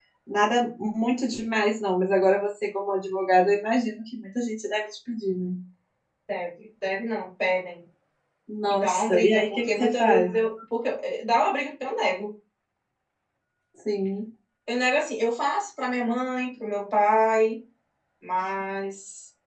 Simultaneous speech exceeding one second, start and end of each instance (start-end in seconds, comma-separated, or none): 8.7-10.3